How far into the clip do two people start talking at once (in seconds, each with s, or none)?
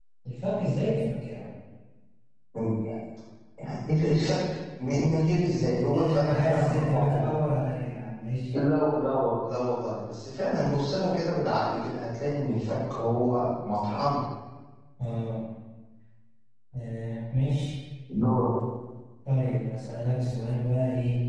5.8 s